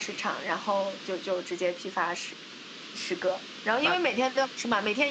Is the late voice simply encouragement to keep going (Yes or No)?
Yes